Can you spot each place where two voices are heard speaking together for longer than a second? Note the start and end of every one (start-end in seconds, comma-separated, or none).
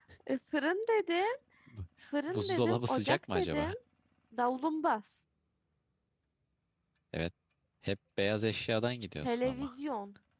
2.3-3.7